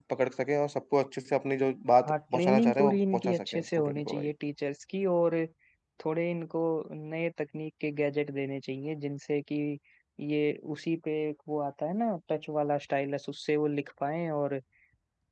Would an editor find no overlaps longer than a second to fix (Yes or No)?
No